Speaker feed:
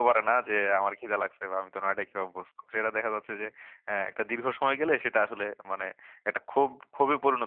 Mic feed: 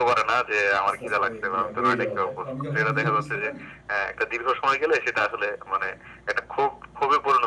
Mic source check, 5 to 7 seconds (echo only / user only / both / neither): echo only